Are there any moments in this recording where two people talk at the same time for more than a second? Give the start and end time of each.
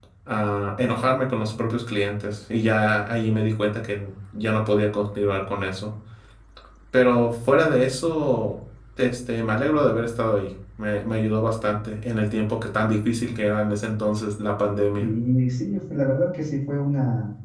none

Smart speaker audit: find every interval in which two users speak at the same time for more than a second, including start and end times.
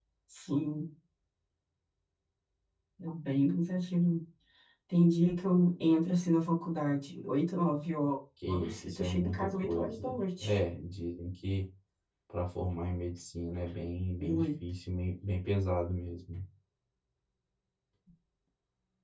8.5-10.6

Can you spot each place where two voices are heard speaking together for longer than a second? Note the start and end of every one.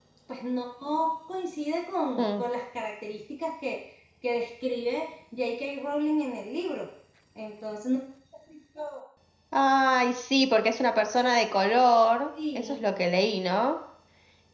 none

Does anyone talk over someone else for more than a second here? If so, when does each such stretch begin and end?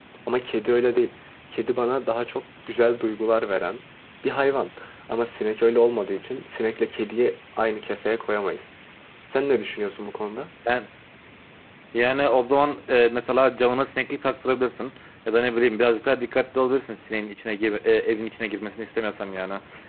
none

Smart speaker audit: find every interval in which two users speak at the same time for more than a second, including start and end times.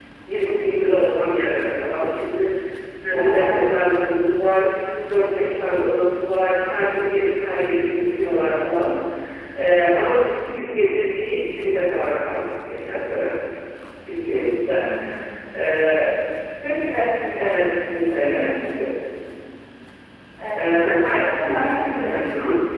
20.6-22.3

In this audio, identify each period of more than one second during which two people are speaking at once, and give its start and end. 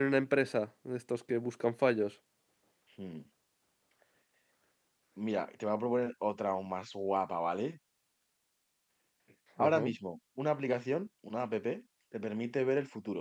none

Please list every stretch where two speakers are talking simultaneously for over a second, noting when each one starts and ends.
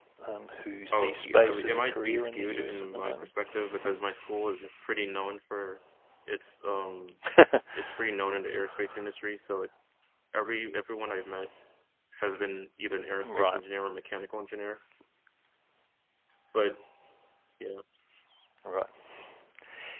0.9-3.3

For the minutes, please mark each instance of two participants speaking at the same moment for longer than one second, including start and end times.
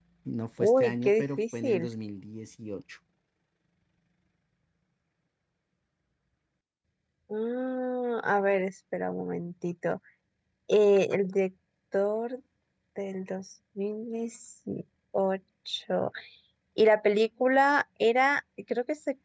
0.6-1.9

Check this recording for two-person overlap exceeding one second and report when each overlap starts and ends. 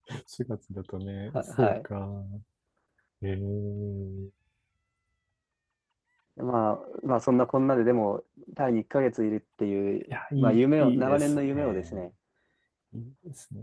10.1-12.0

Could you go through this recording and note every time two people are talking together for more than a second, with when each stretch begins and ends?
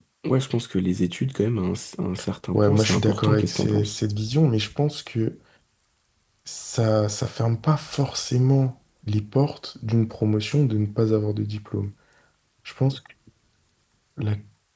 2.5-4.0

